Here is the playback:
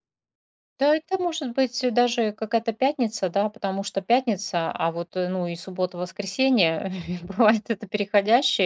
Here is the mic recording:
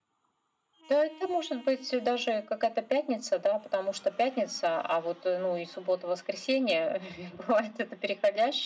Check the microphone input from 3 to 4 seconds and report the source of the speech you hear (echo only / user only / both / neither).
echo only